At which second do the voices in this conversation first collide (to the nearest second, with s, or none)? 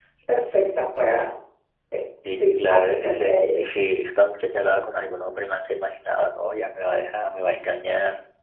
2 s